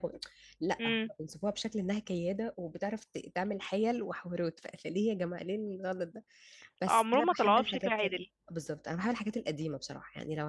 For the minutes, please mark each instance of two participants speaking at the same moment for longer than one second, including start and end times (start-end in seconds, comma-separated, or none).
6.9-8.2